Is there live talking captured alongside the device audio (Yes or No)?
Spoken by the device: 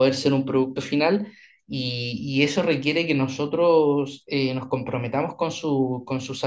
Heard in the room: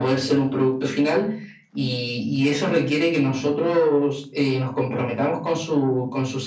No